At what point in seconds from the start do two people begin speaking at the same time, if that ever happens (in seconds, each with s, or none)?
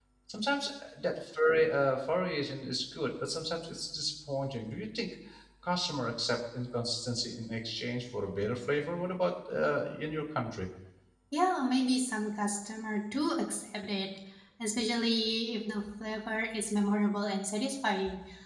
none